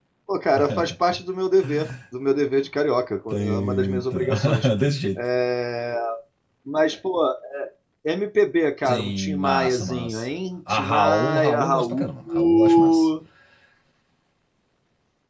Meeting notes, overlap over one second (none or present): present